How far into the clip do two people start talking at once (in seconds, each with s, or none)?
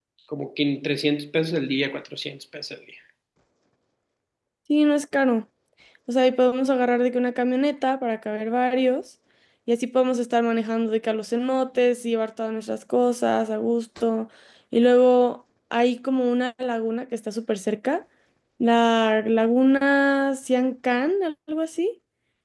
none